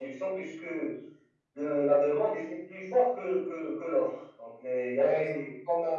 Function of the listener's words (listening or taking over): taking over